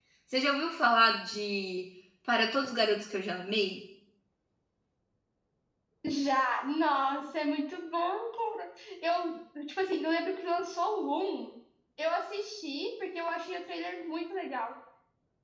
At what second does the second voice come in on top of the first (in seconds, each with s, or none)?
none